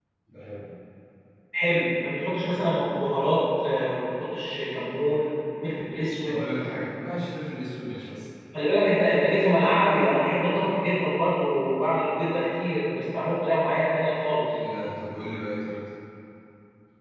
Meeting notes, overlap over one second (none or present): none